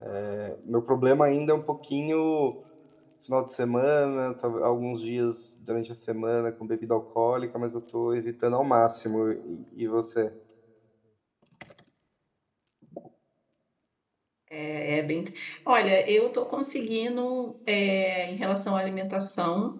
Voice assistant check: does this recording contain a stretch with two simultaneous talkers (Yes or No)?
No